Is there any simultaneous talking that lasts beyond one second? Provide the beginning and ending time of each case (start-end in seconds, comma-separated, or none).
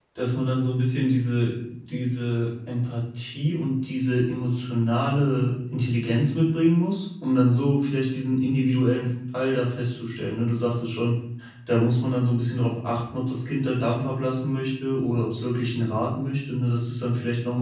none